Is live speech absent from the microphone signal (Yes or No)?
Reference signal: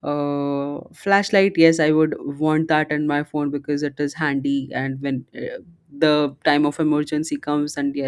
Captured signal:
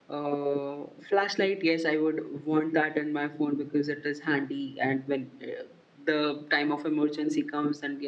Yes